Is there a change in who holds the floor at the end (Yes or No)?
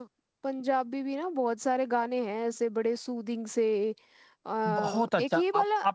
Yes